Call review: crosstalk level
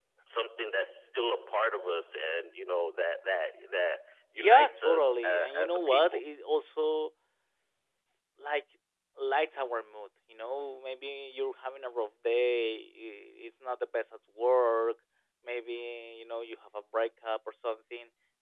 present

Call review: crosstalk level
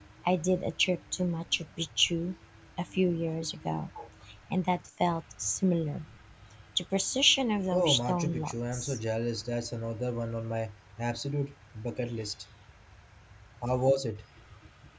present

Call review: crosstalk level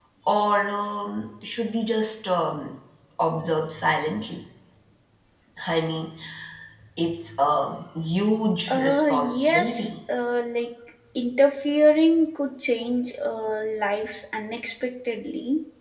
present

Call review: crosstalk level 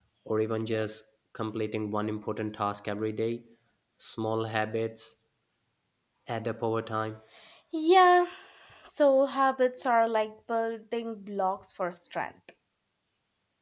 none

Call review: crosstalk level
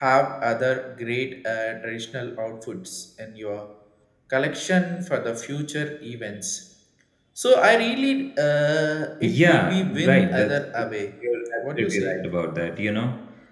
present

